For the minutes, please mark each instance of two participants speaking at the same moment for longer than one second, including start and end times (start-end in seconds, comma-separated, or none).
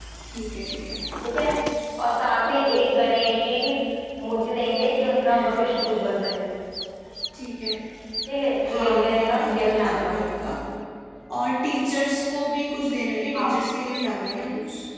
8.7-10.1